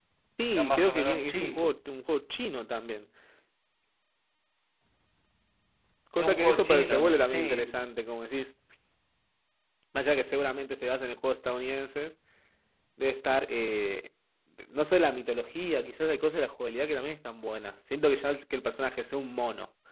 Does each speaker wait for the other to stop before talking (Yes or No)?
No